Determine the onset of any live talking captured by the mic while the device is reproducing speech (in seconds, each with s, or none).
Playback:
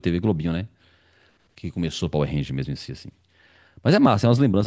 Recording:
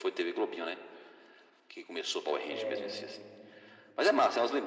2.5 s